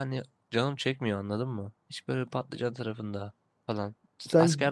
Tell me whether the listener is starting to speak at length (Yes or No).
No